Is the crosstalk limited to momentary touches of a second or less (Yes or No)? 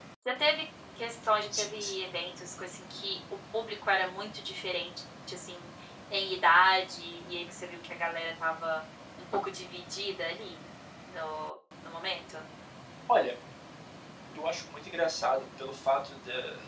Yes